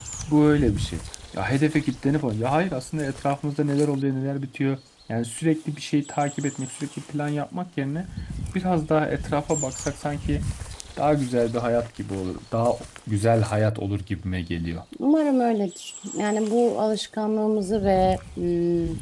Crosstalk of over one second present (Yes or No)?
No